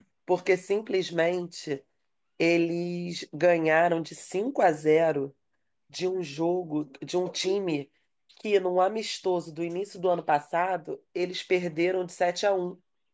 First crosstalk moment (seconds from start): none

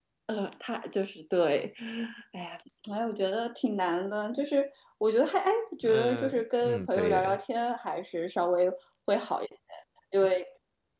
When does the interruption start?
5.8 s

